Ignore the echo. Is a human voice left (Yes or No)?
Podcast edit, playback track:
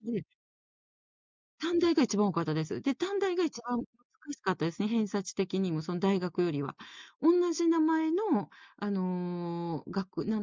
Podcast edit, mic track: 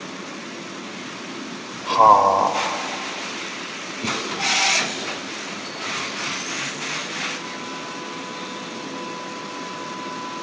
Yes